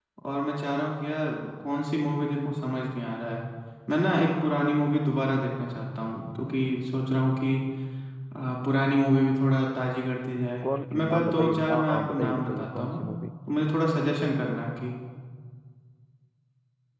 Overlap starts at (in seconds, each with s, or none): 10.6 s